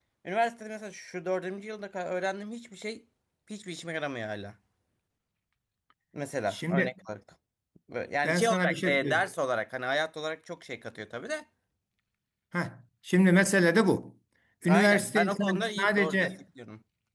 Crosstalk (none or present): present